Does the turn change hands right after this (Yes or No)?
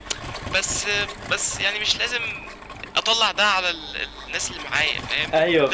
No